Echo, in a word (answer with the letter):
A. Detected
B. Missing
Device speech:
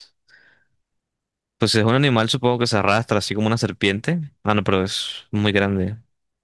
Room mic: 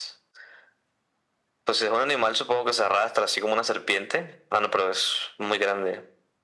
A